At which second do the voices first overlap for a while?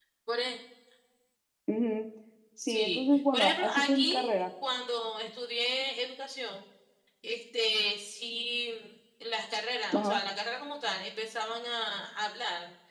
2.6 s

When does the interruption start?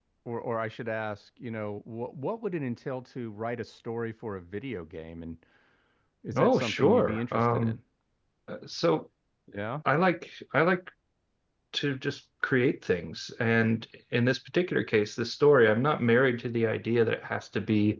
6.4 s

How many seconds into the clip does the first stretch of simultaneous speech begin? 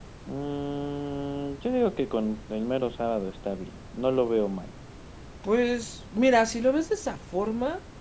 none

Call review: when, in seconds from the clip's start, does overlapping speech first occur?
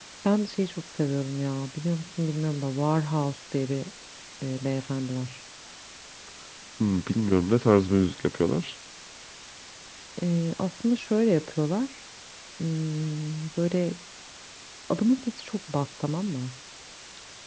none

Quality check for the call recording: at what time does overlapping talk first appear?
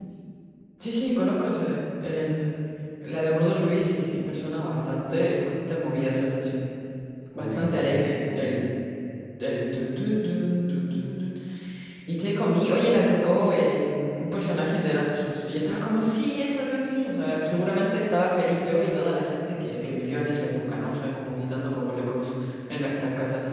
7.4 s

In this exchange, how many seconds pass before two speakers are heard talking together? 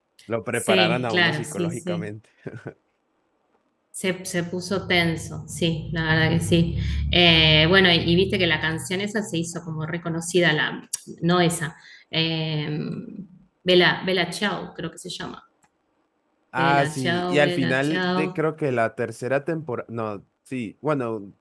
0.5 s

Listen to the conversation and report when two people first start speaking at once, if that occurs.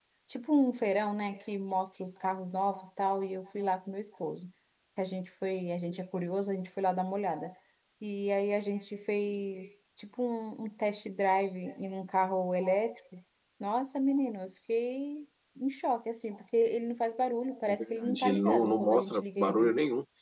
17.7 s

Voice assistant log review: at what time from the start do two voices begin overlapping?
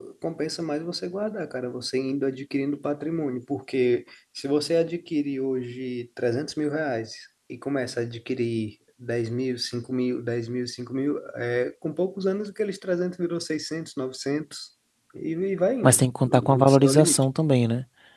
15.8 s

